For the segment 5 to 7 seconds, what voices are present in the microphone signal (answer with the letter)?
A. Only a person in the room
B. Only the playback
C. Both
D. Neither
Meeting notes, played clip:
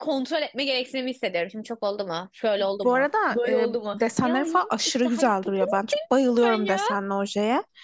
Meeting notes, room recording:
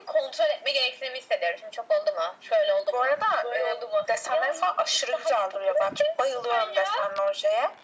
B